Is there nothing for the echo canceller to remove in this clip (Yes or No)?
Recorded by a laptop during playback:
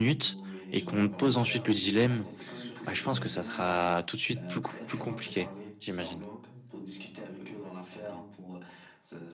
No